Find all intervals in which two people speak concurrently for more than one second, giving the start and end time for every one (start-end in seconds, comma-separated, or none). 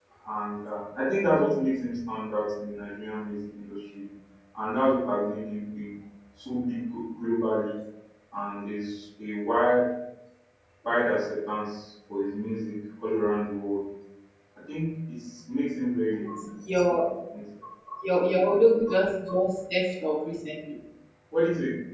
none